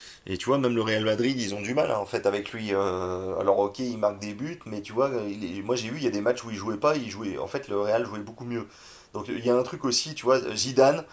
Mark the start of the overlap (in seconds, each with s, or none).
none